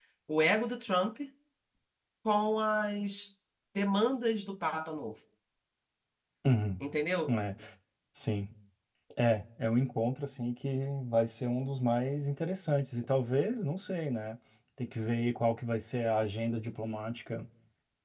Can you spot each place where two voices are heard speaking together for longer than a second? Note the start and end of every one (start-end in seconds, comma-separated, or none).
none